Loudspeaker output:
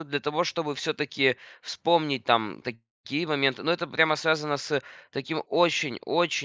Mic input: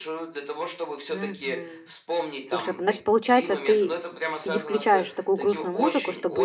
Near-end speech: present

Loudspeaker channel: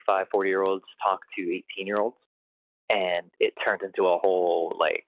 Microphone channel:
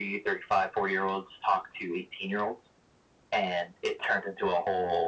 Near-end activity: none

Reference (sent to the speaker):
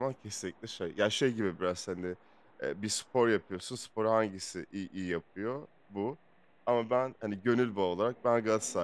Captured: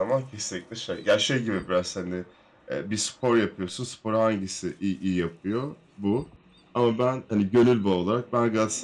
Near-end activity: none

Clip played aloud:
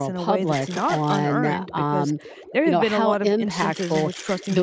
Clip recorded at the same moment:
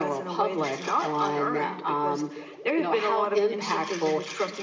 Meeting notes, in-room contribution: none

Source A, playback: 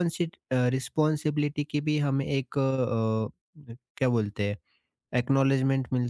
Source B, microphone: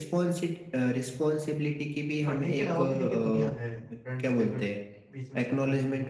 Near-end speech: present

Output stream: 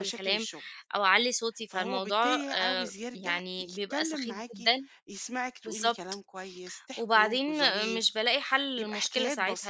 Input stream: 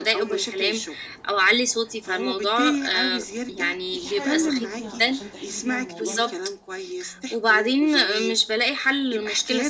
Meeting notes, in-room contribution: present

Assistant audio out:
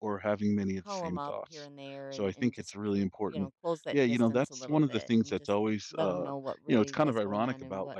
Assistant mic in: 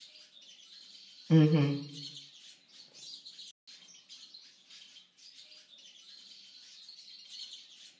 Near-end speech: present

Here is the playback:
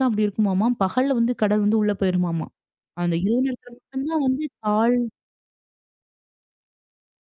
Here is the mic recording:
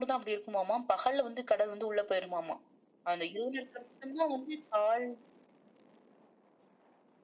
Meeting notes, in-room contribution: none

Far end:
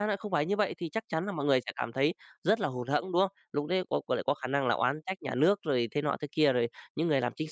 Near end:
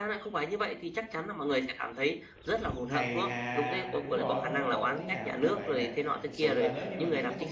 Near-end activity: present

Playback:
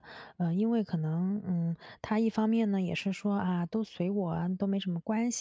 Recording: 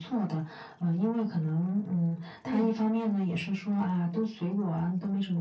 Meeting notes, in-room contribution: present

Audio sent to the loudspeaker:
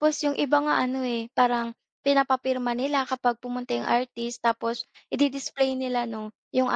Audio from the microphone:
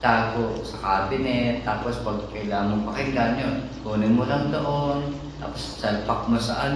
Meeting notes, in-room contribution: present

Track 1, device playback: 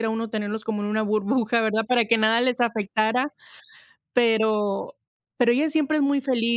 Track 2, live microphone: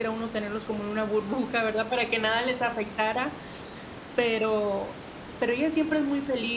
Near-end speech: none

